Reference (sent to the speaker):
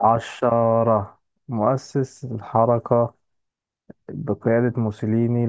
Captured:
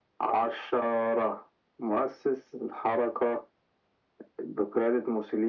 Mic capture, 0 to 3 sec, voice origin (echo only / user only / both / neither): echo only